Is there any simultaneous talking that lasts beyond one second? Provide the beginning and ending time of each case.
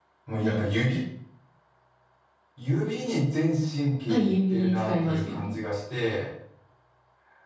4.1-5.5

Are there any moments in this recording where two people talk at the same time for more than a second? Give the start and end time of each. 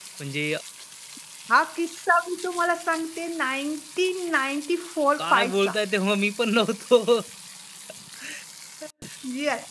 none

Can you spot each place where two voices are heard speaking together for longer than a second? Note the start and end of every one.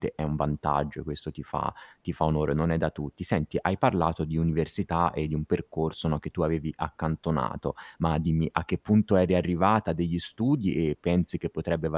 none

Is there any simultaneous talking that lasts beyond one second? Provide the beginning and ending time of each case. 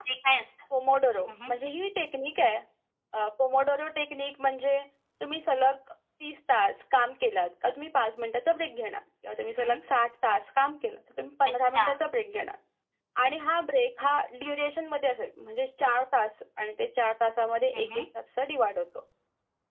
none

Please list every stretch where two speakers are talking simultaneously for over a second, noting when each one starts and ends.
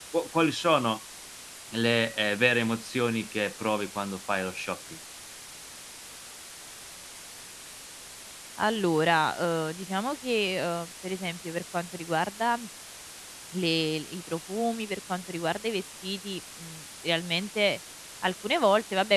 none

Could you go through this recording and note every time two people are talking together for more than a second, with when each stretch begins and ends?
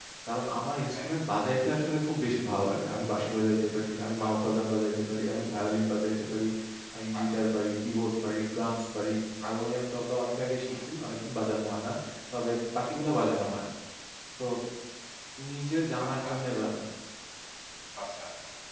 none

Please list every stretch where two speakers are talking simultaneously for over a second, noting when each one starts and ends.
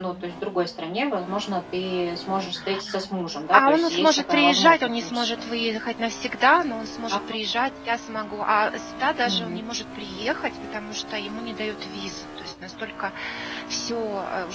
3.5-5.3

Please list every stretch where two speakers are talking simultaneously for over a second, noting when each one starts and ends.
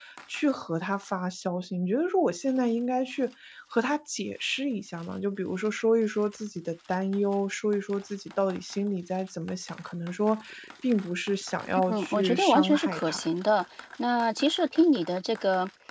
11.9-13.2

